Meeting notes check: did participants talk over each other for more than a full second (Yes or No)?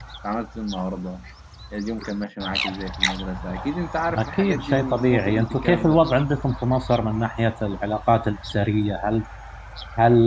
Yes